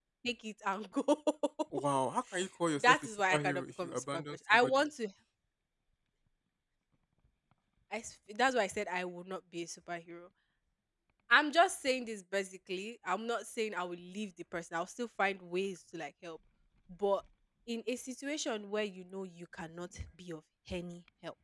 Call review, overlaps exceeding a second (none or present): present